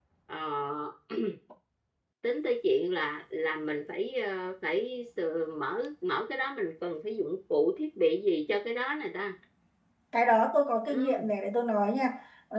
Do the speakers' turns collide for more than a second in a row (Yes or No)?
No